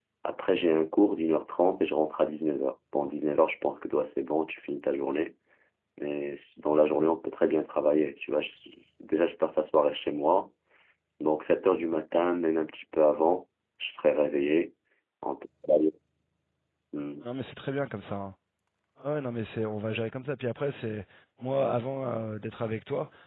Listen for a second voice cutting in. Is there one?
No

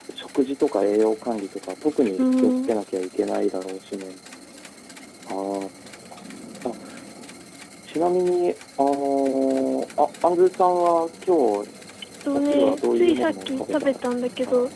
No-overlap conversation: No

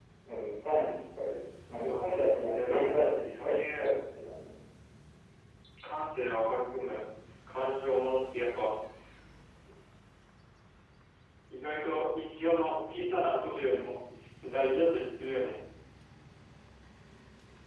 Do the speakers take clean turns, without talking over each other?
No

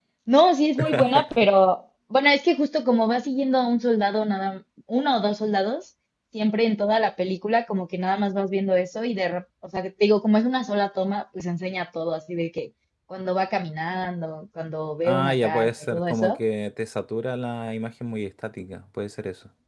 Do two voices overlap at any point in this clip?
Yes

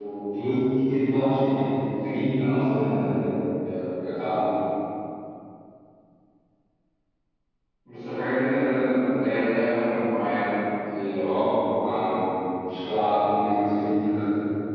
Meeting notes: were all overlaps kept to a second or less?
Yes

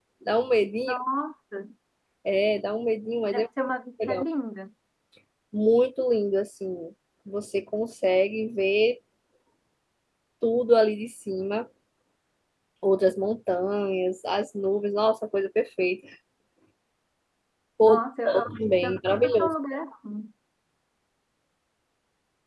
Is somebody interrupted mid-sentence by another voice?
Yes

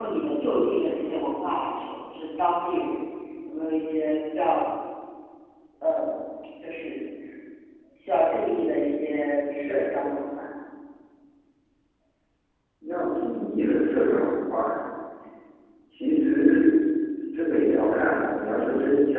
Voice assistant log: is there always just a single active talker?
Yes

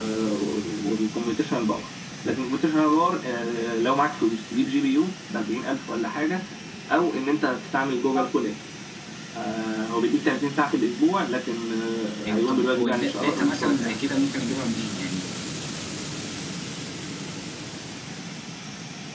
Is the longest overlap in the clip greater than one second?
Yes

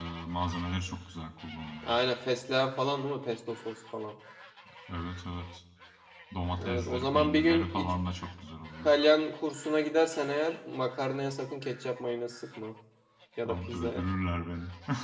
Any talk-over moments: Yes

